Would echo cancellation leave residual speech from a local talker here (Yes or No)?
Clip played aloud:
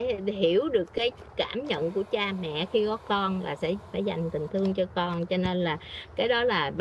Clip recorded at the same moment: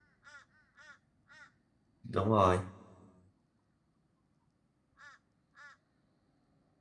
Yes